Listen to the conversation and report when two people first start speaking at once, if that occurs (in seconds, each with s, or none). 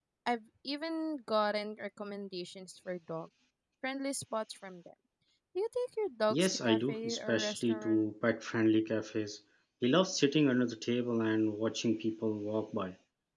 6.3 s